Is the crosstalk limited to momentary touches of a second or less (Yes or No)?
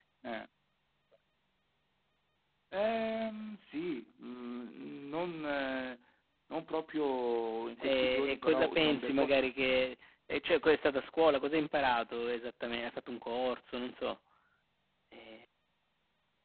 No